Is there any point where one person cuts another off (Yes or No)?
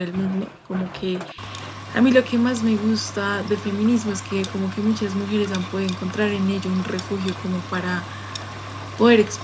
No